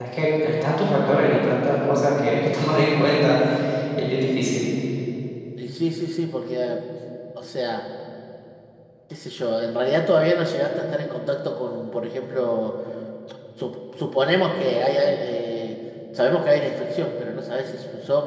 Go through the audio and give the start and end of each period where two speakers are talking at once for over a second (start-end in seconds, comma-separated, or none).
none